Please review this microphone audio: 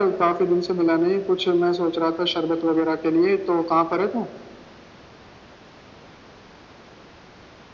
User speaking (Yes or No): No